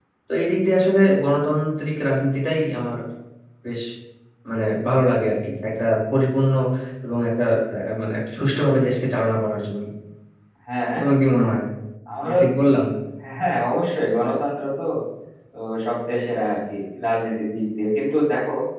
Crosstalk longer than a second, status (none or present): none